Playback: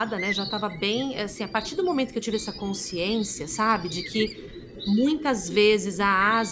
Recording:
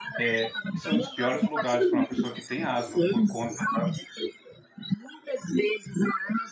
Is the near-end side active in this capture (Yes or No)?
Yes